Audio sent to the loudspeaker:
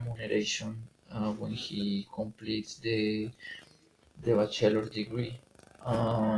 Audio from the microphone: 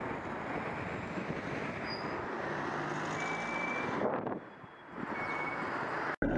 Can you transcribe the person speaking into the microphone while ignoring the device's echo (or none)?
none